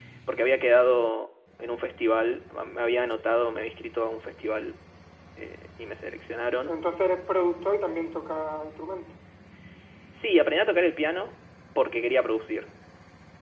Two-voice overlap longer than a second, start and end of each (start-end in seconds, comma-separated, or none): none